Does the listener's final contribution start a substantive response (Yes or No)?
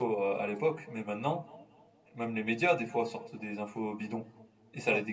No